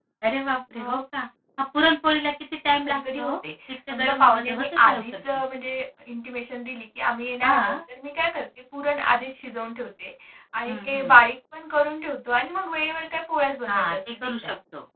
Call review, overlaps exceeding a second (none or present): present